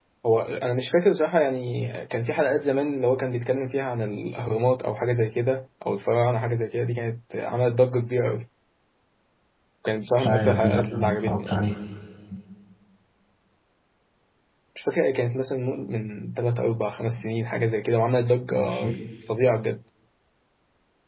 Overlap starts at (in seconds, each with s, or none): 10.2 s